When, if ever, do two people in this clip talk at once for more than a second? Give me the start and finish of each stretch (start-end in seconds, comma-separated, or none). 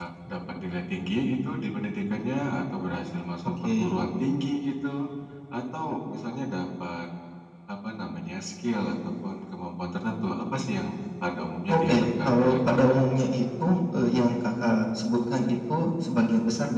11.7-13.0